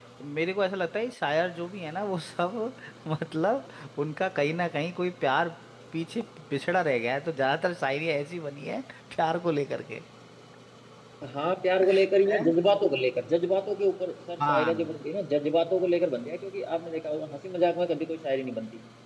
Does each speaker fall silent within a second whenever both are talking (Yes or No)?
Yes